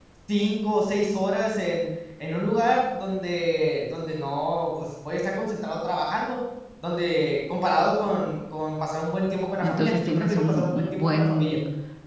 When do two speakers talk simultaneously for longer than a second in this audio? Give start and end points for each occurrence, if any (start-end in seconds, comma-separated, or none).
9.6-11.6